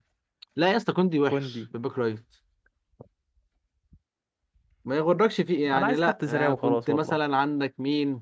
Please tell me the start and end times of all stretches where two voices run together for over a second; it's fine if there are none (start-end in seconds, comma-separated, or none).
5.7-7.2